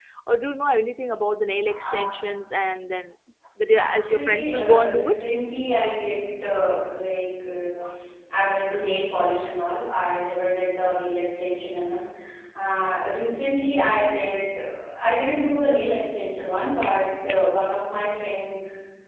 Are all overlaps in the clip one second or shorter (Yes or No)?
No